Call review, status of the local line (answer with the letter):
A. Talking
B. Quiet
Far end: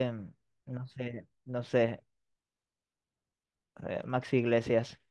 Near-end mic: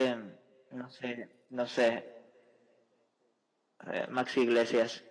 B